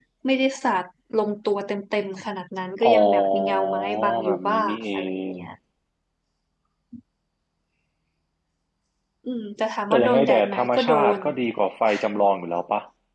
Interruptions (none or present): present